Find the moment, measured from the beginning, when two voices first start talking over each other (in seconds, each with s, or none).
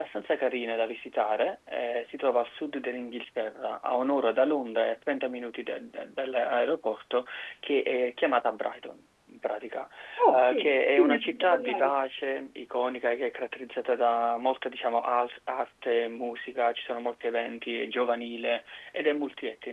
10.3 s